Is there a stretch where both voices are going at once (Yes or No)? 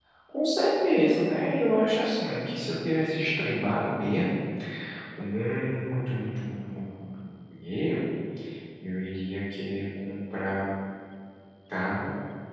No